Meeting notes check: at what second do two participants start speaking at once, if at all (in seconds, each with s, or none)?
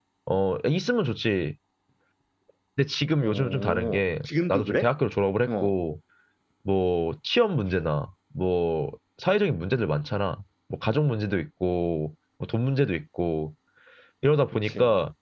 3.2 s